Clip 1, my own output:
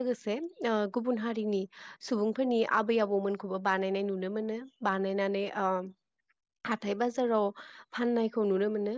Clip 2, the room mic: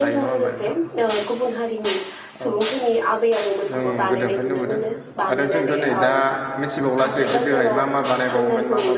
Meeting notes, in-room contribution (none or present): present